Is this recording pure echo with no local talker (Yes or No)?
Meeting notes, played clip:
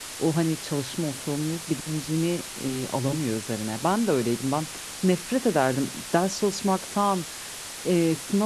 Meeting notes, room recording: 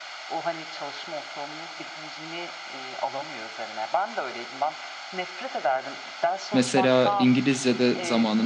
No